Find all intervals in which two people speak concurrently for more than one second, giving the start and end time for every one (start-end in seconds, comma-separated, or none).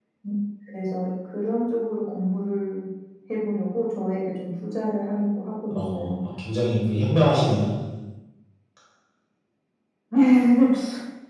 none